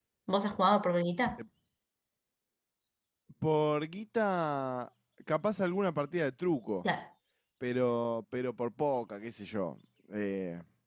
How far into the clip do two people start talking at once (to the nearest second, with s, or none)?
none